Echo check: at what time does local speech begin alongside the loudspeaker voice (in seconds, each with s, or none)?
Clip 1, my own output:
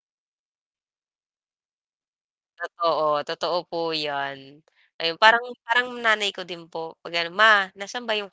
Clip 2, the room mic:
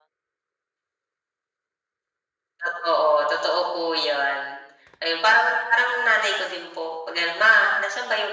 none